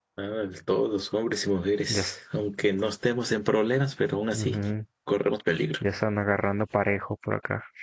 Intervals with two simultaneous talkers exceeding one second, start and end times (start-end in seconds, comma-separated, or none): none